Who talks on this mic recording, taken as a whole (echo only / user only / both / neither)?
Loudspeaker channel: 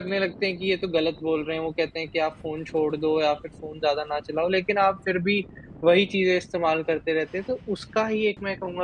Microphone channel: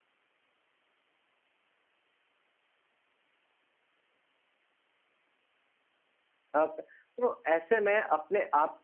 user only